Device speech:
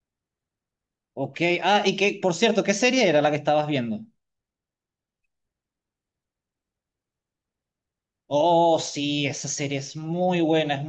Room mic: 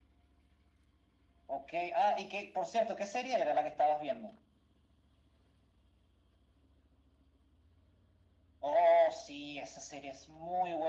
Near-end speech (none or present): none